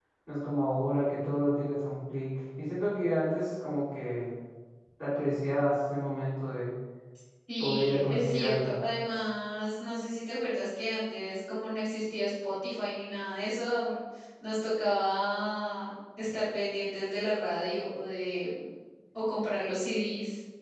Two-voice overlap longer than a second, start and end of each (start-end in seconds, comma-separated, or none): 7.6-8.8